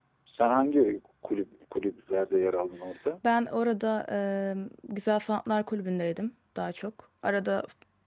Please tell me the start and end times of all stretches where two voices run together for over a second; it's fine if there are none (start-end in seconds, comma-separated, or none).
none